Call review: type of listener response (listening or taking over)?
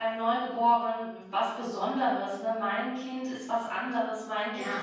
listening